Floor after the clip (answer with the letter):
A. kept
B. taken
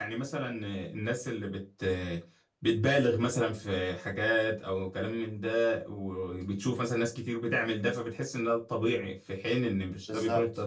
B